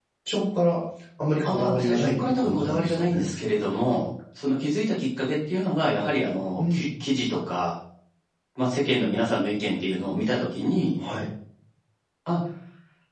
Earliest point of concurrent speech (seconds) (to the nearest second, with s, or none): 1 s